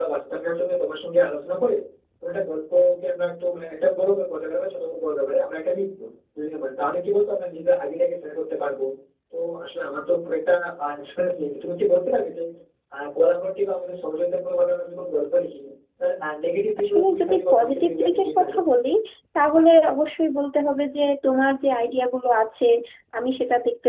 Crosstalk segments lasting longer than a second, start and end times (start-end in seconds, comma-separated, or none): 16.8-18.6